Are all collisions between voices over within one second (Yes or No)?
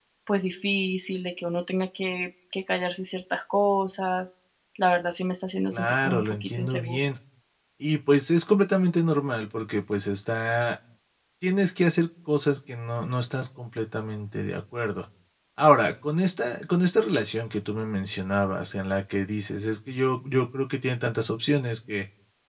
No